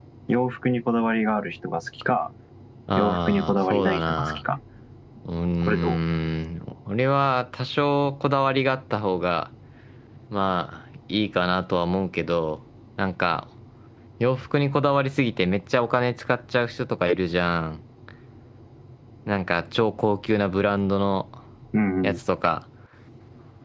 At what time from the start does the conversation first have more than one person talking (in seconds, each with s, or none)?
2.9 s